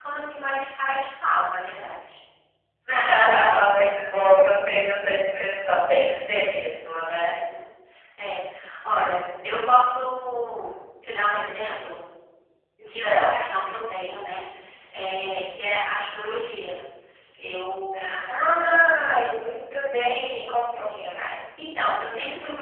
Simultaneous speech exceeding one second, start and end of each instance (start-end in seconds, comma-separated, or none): none